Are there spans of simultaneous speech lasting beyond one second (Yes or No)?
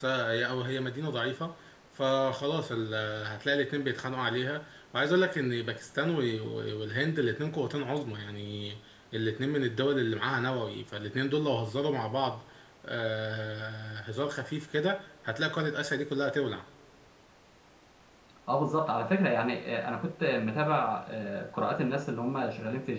No